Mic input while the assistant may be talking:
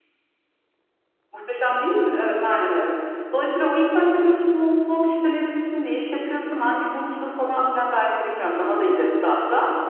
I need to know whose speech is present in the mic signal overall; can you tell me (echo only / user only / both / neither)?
echo only